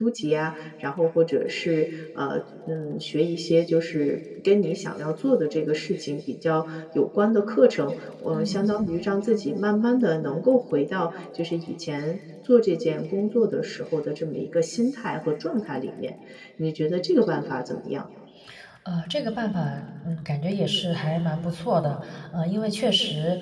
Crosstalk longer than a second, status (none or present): none